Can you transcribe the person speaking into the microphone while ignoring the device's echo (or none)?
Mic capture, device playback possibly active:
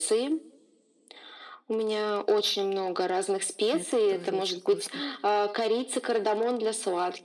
Это тоже очень вкусно.